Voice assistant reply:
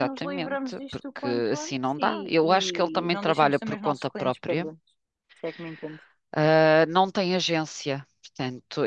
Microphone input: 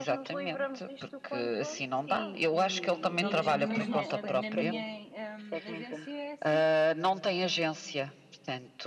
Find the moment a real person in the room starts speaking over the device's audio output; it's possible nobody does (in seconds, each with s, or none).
3.2 s